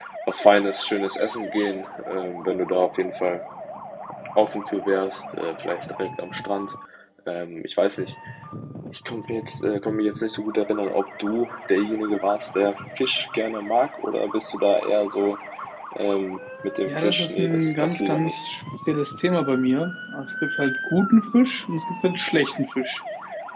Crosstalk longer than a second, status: present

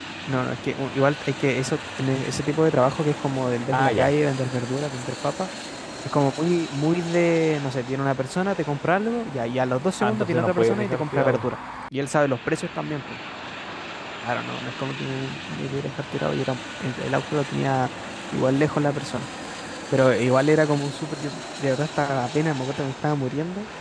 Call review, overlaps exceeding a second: present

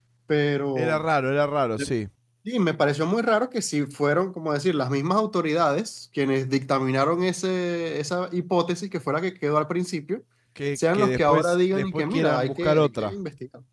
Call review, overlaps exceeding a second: present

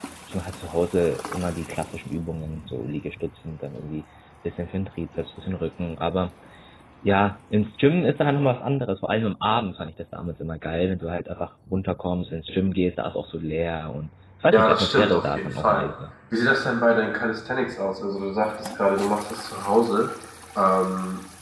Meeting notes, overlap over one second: present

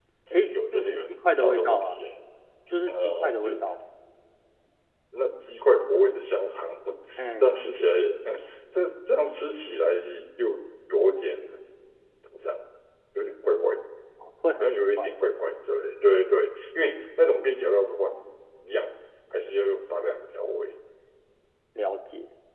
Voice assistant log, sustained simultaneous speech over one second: present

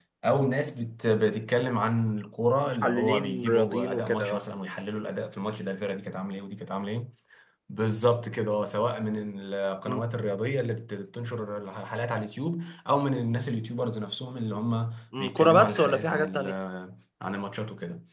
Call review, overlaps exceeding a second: present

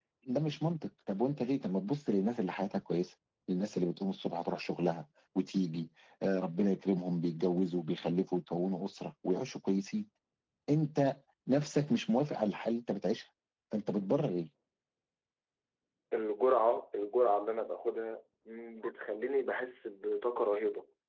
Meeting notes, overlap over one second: none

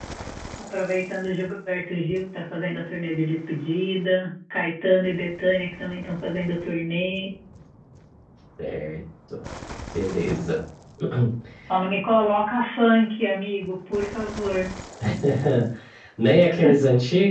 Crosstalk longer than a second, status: none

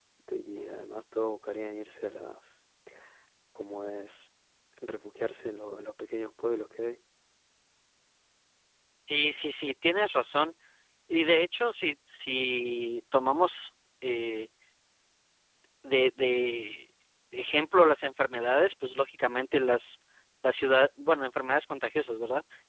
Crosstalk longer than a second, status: none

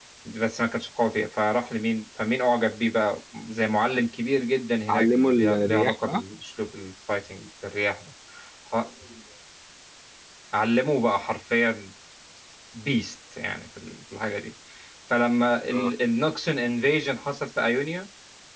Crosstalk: present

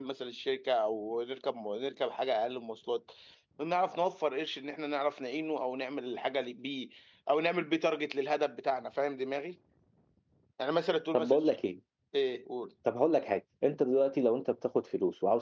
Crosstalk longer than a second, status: none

